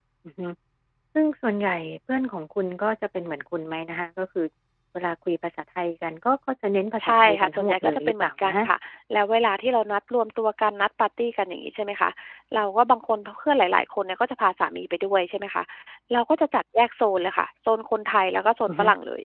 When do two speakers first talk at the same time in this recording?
7.0 s

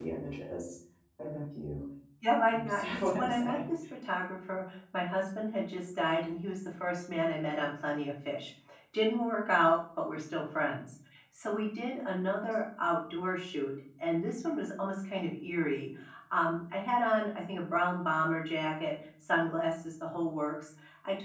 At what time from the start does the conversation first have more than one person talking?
2.5 s

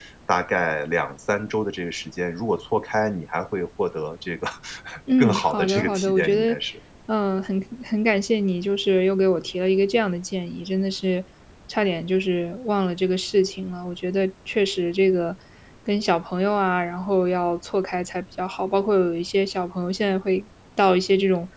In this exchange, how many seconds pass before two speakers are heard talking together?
5.2 s

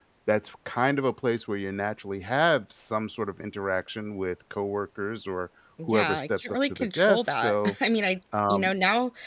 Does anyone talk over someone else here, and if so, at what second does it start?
5.9 s

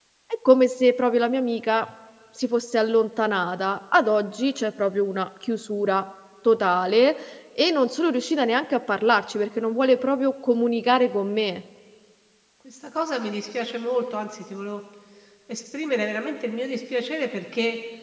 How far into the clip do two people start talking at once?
none

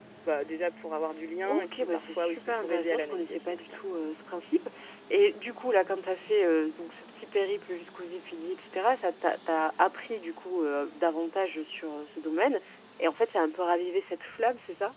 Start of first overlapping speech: 1.4 s

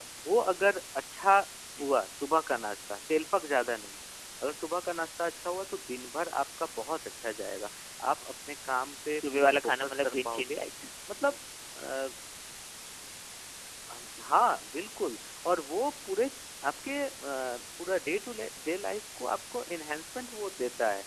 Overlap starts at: 9.2 s

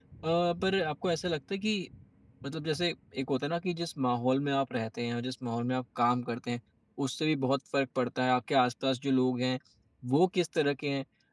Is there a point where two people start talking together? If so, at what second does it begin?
none

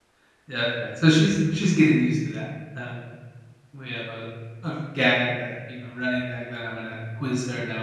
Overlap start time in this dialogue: none

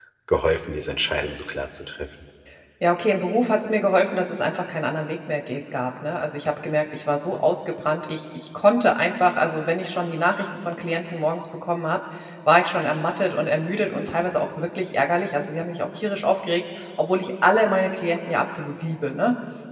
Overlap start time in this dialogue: none

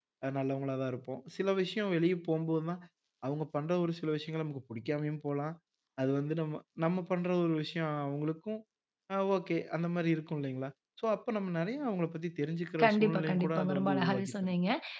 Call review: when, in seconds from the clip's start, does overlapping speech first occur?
12.8 s

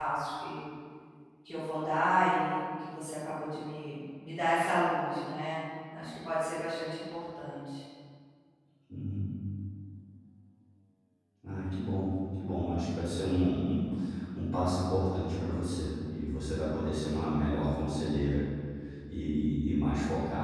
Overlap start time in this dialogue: none

